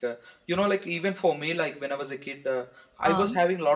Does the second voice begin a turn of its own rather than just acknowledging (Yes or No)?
No